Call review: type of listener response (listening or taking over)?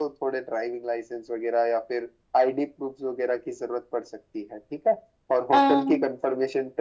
listening